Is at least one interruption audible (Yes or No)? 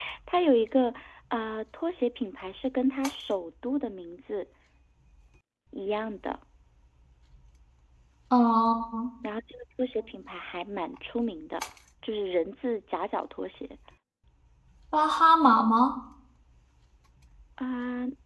No